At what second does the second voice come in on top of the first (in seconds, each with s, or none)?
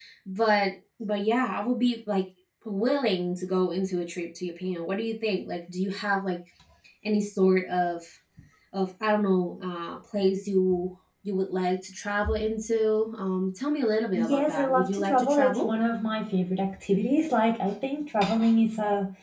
14.1 s